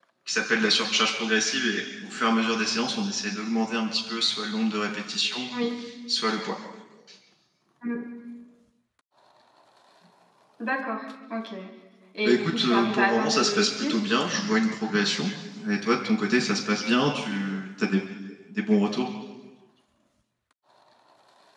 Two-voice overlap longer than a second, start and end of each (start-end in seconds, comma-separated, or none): 12.2-13.9